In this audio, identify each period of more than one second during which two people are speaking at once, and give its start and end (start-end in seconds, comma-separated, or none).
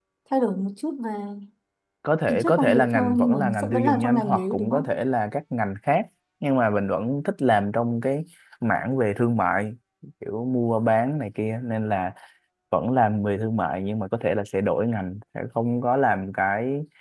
2.3-5.0